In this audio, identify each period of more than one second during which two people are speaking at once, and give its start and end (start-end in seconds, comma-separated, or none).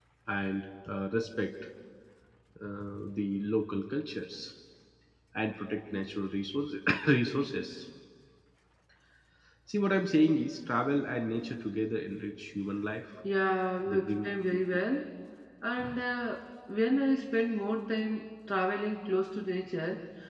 none